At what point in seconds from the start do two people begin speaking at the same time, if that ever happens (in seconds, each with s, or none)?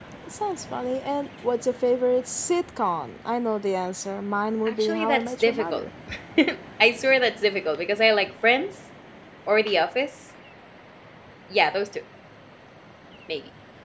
4.7 s